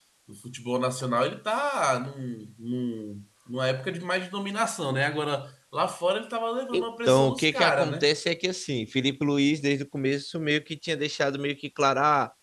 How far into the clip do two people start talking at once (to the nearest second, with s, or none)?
7 s